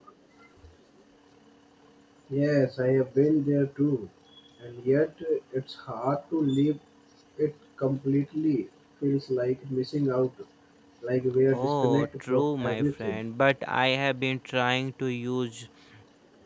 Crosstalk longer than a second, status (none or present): present